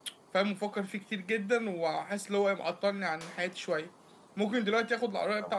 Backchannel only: Yes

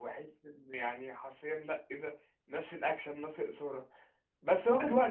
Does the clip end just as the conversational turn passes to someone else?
No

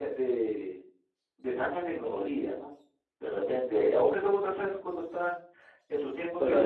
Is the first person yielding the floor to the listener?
Yes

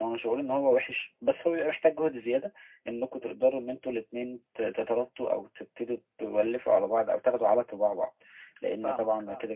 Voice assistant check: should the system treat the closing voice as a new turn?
No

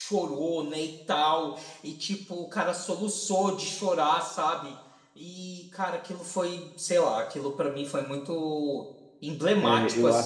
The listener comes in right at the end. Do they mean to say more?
Yes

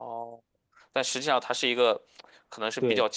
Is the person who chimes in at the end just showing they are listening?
Yes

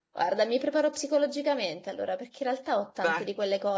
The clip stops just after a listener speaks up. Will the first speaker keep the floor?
Yes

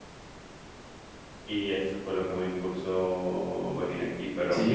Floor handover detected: Yes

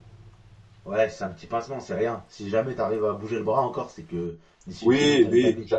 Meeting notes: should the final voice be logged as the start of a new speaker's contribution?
Yes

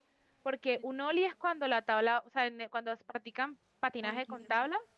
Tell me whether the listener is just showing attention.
Yes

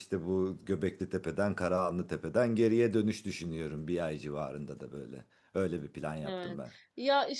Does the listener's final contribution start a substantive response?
Yes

